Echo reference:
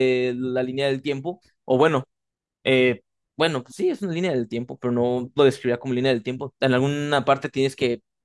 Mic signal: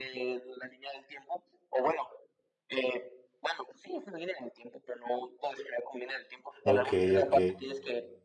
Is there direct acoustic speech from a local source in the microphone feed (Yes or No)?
Yes